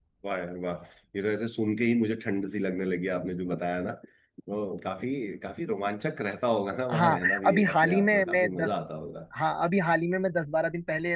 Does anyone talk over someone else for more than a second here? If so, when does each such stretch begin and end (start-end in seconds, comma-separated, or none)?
6.9-8.7